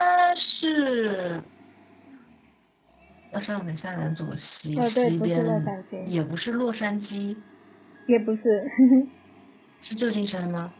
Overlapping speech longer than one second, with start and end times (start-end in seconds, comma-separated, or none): 4.8-6.1